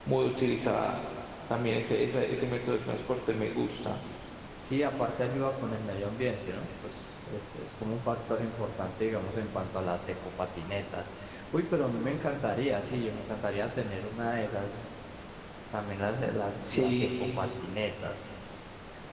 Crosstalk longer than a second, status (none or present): none